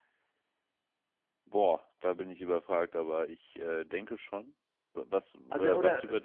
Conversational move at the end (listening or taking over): taking over